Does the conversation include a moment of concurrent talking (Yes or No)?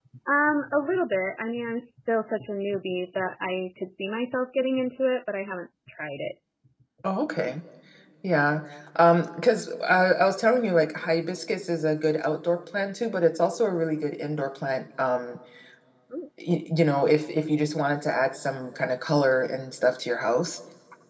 No